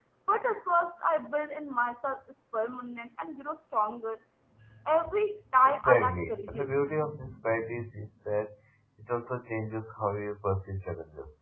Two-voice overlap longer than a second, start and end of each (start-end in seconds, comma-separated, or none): 5.6-6.9